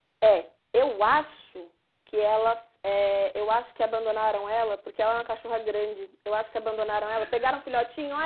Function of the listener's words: listening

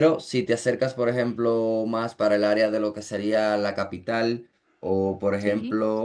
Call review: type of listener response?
listening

